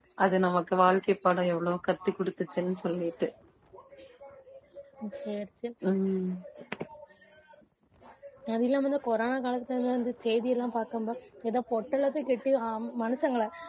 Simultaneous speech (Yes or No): No